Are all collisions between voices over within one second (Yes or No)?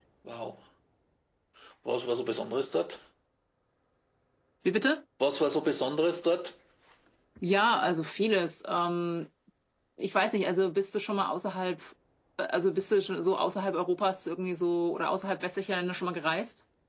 Yes